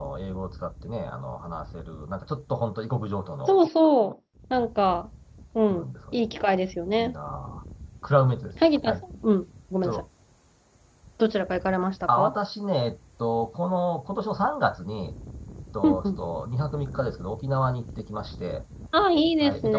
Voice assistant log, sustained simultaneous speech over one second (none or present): none